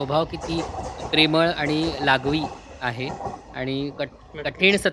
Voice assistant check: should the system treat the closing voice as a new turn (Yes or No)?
No